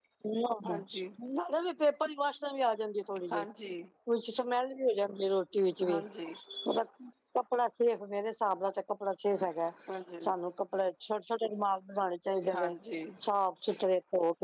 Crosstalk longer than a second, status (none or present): none